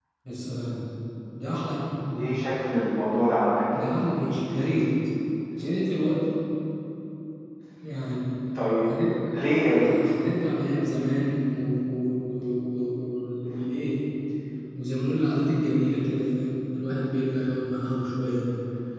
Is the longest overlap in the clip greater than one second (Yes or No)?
No